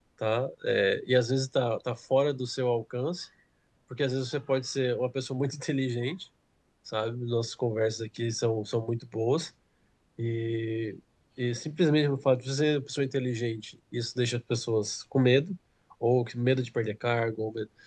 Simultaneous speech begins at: none

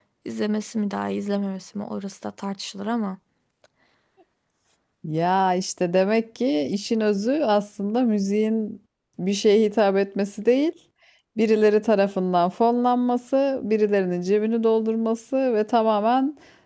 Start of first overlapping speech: none

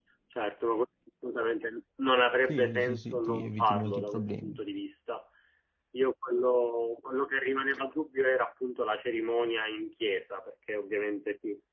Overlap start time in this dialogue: 2.5 s

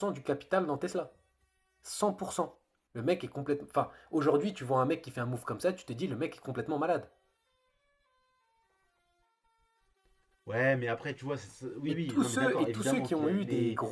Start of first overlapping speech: 11.9 s

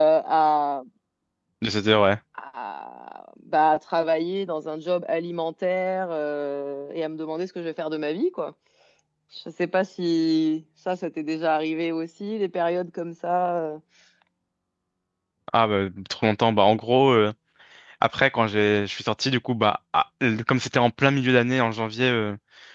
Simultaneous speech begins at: none

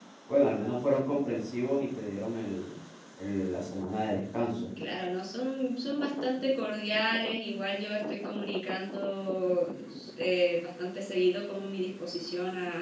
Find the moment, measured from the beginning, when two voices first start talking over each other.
none

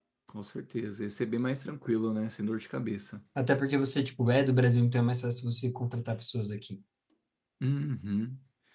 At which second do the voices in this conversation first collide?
none

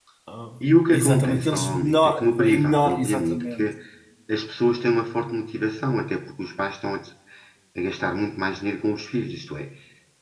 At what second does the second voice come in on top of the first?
0.9 s

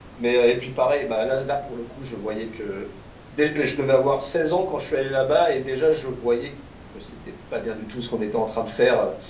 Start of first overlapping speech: none

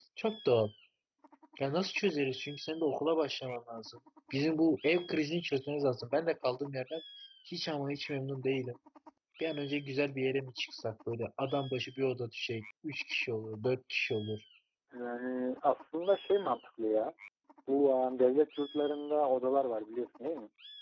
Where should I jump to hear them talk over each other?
none

